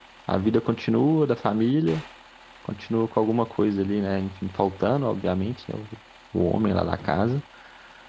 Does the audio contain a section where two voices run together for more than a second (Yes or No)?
No